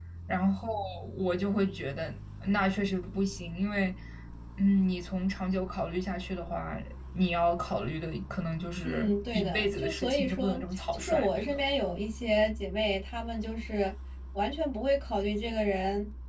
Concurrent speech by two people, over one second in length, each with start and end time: 8.8-11.6

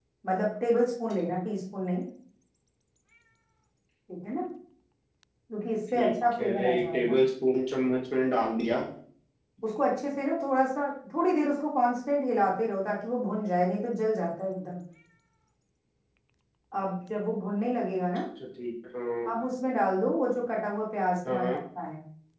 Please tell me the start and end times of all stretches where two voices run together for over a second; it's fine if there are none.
6.0-7.2

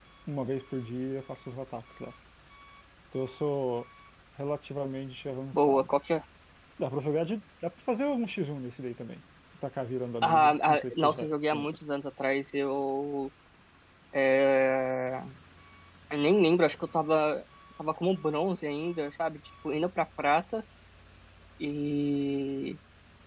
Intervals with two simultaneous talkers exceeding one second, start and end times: 10.2-11.8

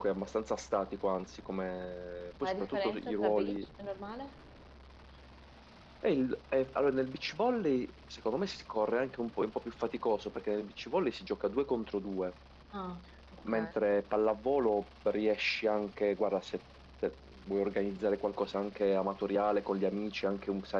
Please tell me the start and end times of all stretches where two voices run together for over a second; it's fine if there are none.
2.4-3.6

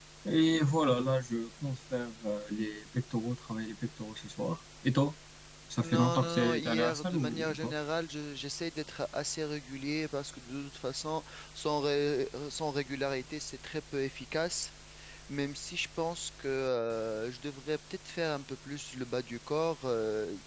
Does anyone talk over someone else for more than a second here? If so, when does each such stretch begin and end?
5.8-7.7

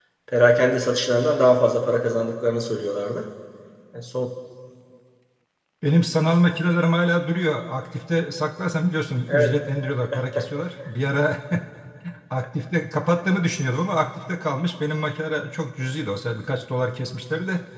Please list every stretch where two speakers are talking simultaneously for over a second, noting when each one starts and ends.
none

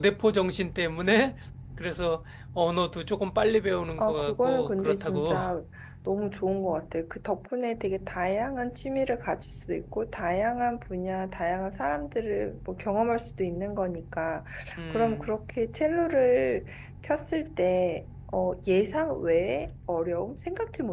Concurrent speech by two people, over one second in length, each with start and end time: 4.0-5.4

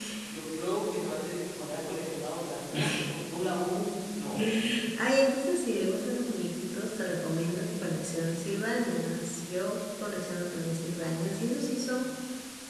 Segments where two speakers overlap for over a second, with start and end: none

